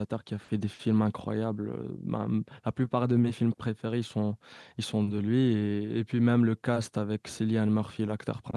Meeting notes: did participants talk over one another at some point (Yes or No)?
No